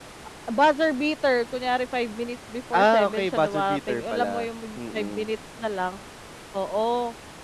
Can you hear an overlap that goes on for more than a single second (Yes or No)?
Yes